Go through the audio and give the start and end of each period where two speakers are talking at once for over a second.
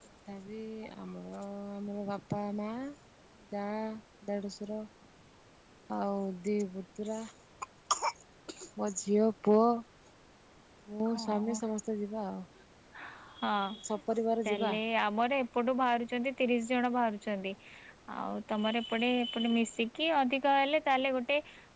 none

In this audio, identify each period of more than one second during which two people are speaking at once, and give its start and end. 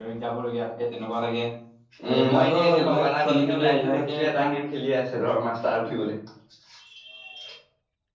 2.1-4.5

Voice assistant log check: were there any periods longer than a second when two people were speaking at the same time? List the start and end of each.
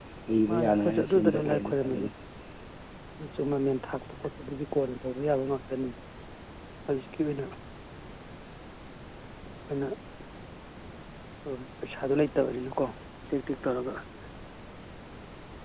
0.6-2.1

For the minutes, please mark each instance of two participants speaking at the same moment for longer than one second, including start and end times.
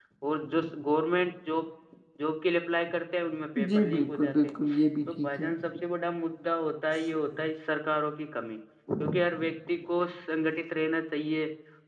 3.7-5.4

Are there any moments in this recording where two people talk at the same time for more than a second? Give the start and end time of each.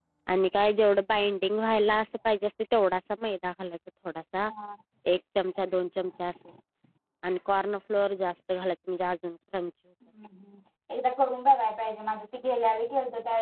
none

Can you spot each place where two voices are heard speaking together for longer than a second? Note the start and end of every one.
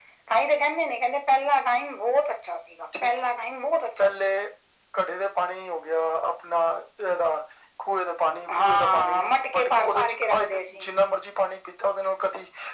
8.5-10.8

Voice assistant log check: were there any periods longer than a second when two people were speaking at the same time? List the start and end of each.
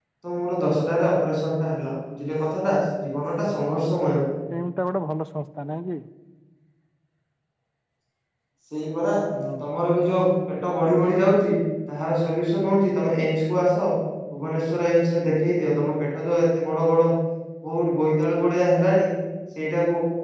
none

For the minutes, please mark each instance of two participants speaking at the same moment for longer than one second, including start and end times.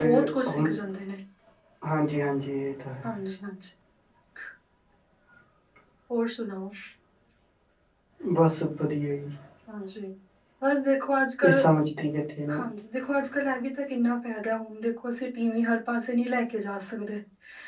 none

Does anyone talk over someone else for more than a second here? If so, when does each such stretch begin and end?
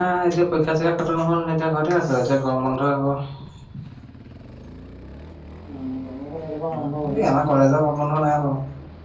none

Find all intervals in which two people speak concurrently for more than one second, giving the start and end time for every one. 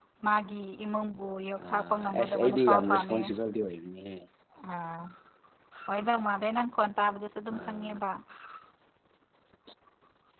1.7-3.2

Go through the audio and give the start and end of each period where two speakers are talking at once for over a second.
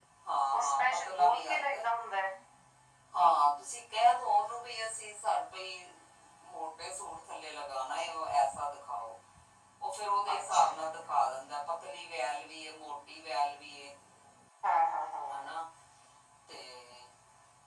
0.6-1.8

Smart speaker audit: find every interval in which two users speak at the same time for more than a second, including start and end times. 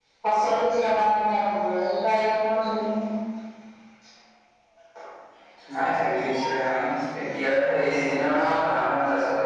none

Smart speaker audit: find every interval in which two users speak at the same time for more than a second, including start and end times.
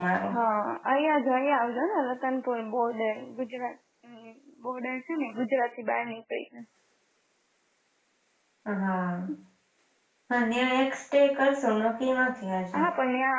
none

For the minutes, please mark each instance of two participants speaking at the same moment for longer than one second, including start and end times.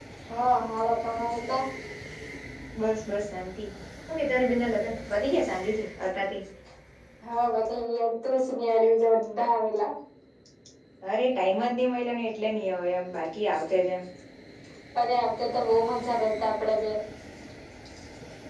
none

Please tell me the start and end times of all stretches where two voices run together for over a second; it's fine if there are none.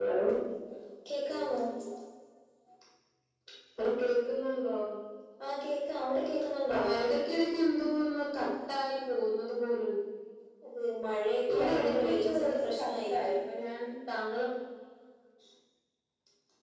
11.5-13.4

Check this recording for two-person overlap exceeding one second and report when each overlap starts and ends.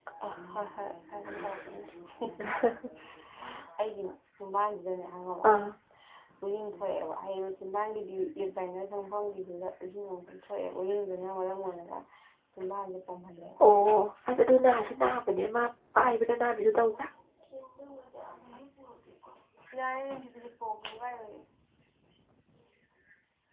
none

